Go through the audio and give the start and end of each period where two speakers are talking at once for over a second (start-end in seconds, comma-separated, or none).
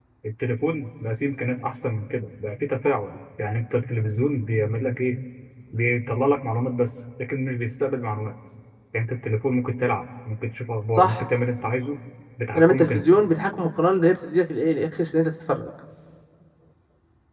none